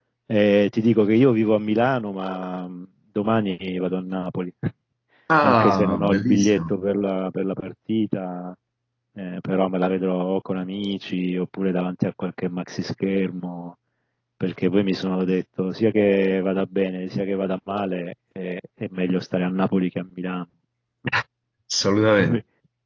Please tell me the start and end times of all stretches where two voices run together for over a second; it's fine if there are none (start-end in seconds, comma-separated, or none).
5.4-6.7